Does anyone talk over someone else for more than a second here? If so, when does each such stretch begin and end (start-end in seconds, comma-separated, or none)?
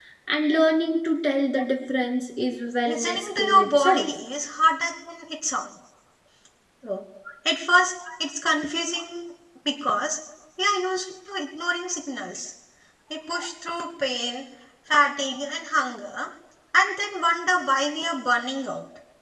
2.9-4.1